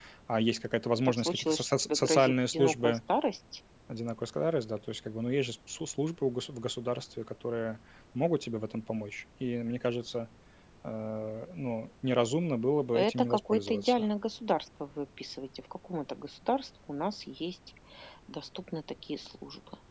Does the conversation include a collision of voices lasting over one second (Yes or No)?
Yes